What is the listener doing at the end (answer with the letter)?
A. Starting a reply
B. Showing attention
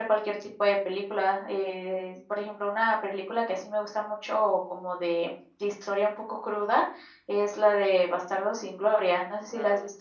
A